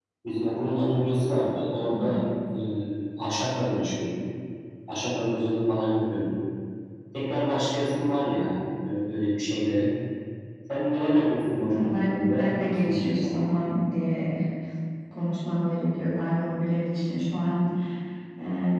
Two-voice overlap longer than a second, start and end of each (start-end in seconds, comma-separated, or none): 11.7-13.6